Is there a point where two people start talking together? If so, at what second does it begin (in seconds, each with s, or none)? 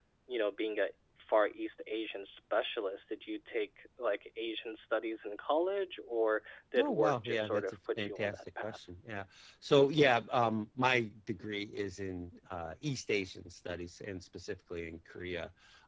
6.8 s